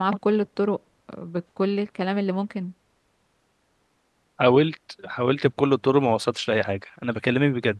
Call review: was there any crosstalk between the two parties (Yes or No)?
No